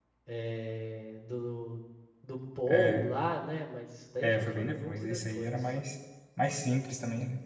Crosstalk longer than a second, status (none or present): present